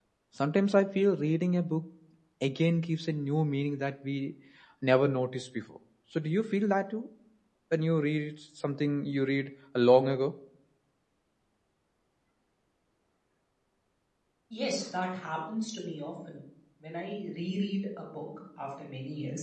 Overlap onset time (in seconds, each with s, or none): none